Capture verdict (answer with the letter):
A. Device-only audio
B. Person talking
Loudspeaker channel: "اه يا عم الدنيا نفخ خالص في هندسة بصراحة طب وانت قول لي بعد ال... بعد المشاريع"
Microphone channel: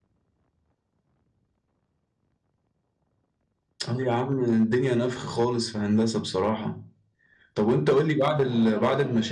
B